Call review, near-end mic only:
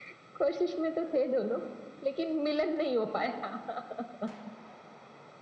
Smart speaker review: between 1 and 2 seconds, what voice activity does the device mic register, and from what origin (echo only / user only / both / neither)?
echo only